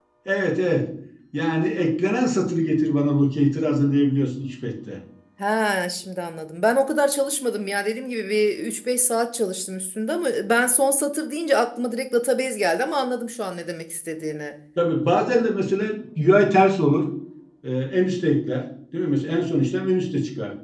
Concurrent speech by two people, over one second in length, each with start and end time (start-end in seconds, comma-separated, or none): none